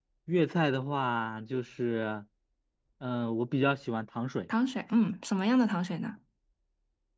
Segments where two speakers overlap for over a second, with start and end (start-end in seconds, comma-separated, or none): none